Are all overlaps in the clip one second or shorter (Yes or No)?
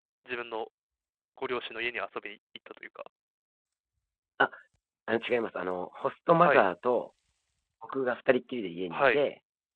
Yes